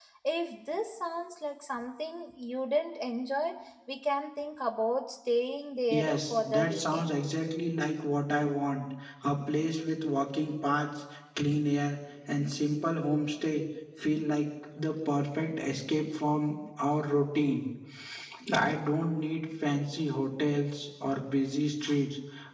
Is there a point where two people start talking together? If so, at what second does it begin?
5.9 s

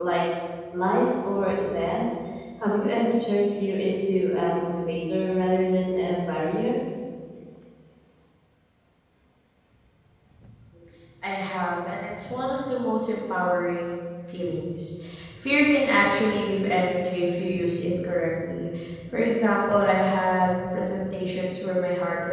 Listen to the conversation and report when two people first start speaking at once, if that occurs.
none

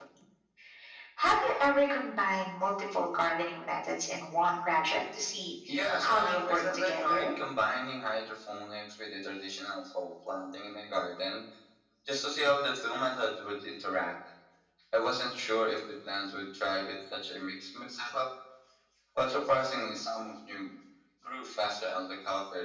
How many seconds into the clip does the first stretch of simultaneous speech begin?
6.0 s

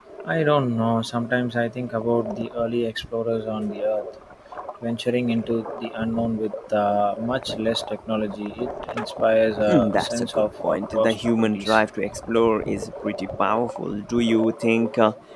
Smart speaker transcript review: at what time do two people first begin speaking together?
9.7 s

